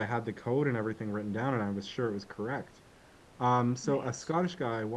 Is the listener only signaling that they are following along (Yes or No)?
Yes